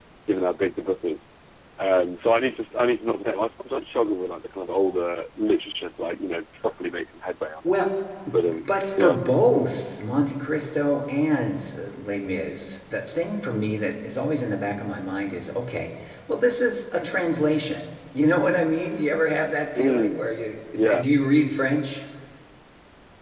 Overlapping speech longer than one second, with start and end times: none

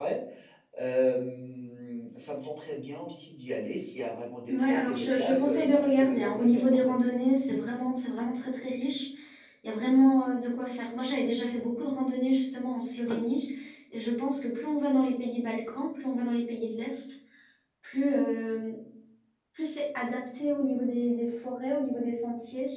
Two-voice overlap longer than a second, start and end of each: 4.5-7.0

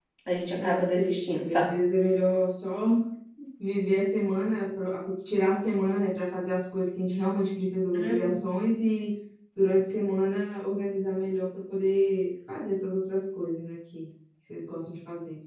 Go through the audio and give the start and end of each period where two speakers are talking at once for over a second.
0.6-1.8

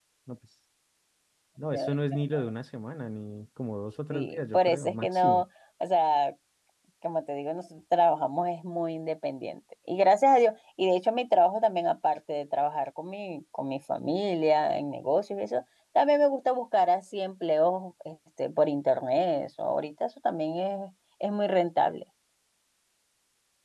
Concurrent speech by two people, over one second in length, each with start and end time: 4.1-5.4

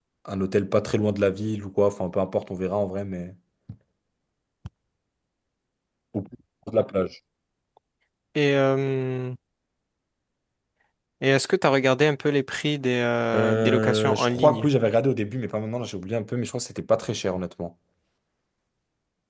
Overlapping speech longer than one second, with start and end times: 13.3-14.7

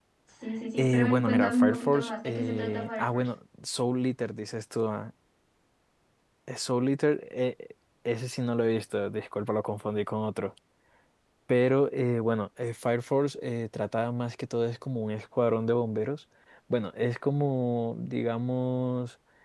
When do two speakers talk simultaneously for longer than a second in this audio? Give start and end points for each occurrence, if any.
0.8-3.3

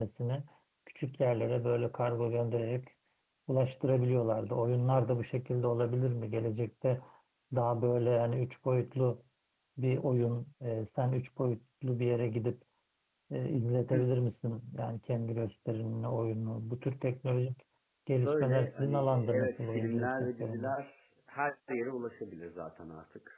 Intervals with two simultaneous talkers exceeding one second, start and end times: 18.2-20.7

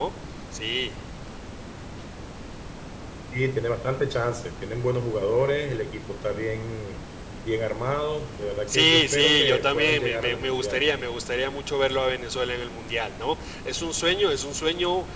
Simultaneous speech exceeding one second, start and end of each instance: 8.7-11.1

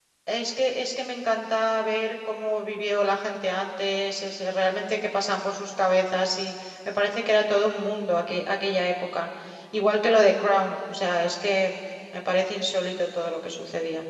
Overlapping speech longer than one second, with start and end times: none

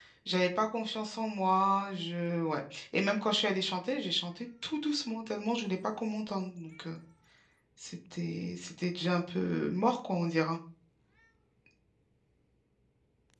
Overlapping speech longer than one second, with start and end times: none

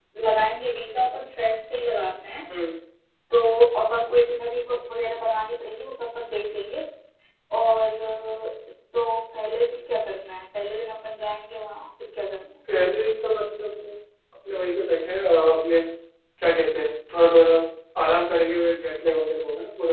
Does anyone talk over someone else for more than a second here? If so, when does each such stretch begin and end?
none

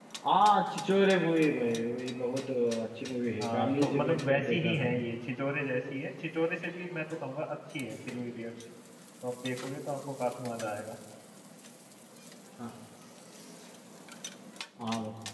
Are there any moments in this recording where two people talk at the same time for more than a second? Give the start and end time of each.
3.4-5.0

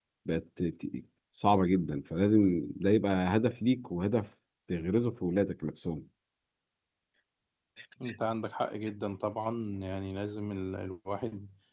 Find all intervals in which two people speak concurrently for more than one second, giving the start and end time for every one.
none

